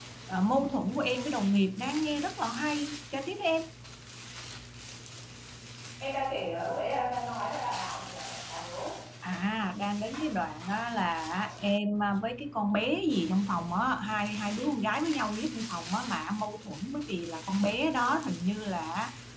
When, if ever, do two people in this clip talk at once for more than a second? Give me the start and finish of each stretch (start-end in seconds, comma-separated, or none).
none